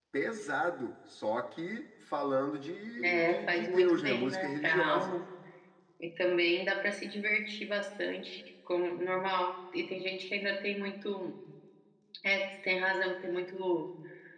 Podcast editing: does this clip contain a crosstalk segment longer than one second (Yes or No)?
Yes